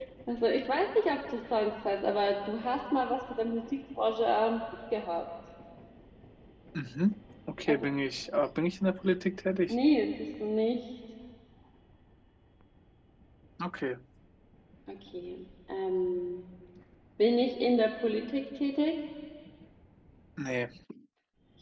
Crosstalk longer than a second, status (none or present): none